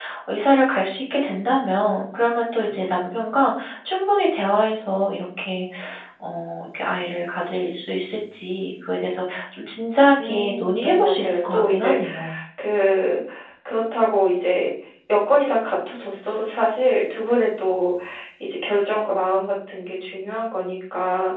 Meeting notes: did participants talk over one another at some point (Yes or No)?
Yes